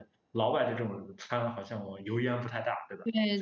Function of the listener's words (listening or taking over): listening